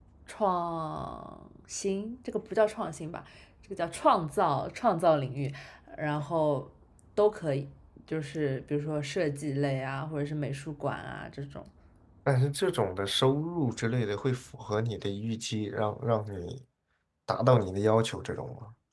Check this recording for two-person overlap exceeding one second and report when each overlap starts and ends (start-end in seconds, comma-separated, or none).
none